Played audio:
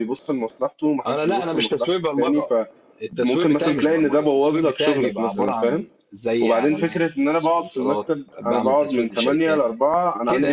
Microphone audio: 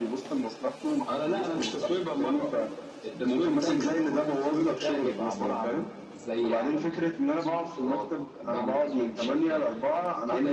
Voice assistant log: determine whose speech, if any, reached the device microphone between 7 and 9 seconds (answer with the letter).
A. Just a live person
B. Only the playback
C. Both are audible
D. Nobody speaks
B